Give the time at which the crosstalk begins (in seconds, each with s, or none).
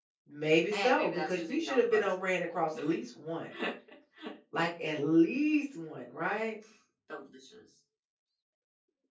0.7 s